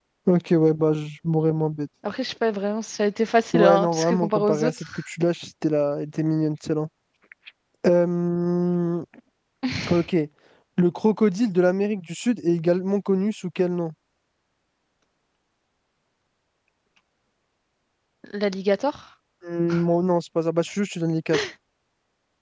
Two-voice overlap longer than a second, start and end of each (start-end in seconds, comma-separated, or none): 3.5-5.0